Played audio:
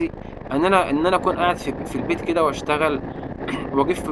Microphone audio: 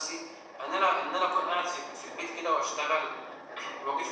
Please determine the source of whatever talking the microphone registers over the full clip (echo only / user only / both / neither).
echo only